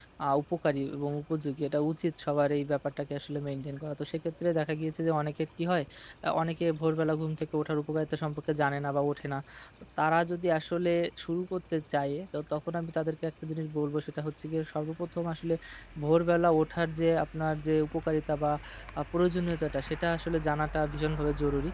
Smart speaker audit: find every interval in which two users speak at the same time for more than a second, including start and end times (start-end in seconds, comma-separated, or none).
none